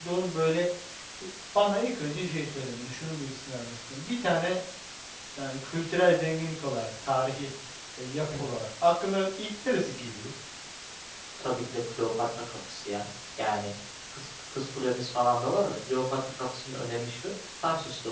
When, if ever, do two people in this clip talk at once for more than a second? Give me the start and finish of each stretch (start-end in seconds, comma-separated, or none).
none